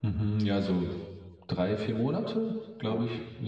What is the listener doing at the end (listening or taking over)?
taking over